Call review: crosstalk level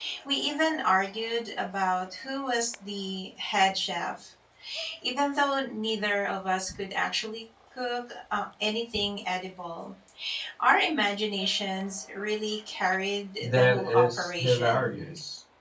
present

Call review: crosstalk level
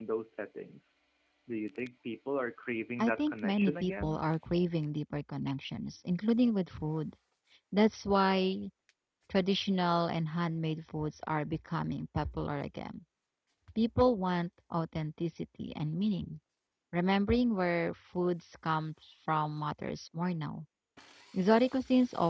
present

